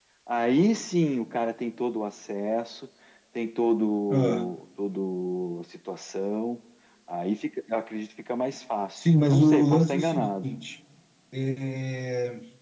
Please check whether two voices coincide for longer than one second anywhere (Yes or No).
Yes